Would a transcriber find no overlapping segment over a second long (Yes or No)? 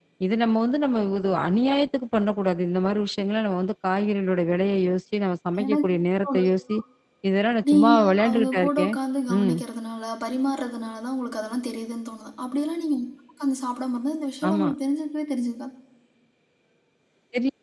No